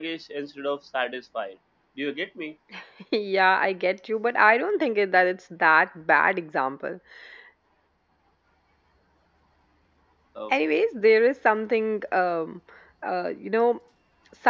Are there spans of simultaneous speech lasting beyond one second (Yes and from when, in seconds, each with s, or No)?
No